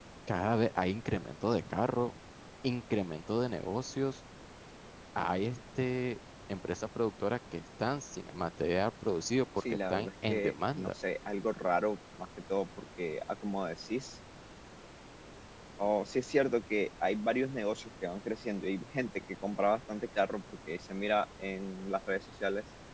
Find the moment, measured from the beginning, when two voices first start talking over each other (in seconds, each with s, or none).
9.6 s